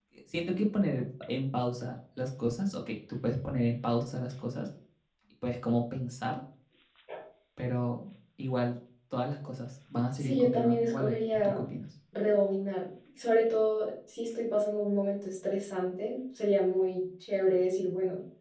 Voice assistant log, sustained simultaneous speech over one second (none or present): present